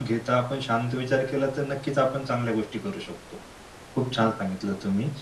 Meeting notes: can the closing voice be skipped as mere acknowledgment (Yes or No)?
Yes